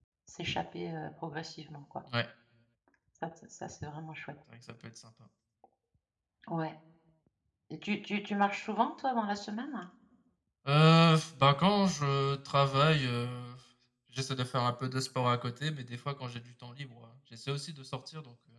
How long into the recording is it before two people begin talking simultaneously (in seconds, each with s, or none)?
none